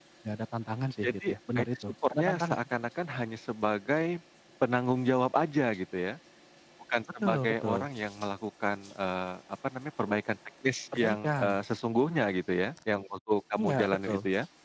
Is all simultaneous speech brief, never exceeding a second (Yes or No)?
No